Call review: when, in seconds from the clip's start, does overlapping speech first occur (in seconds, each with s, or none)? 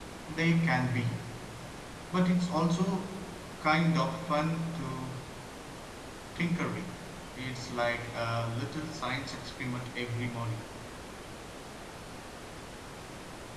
none